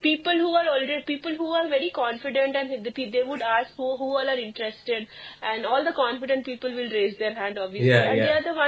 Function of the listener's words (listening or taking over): listening